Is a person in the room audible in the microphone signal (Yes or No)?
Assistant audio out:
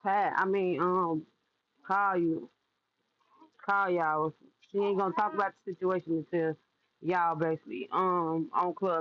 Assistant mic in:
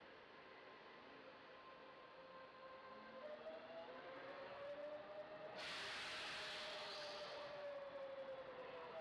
No